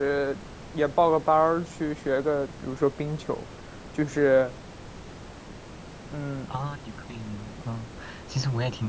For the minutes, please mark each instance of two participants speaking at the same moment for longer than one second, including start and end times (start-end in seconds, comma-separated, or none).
none